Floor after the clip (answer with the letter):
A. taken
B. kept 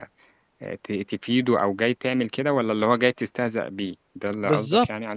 A